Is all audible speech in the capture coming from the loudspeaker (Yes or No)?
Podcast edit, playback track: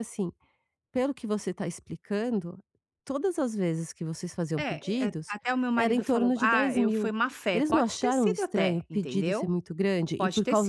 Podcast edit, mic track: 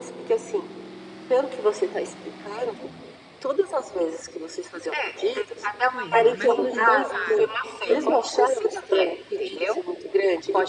No